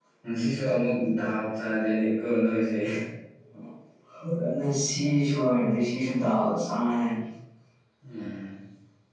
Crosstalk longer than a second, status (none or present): none